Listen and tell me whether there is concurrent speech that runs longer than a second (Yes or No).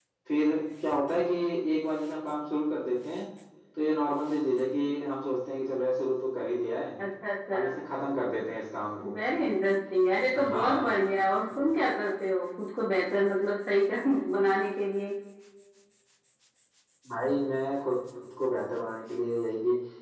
No